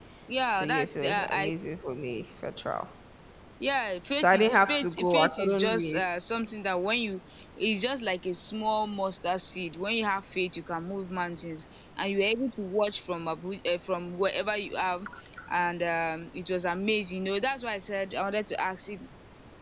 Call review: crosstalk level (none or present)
present